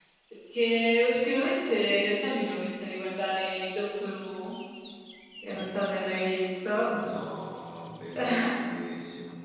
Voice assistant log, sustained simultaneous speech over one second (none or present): none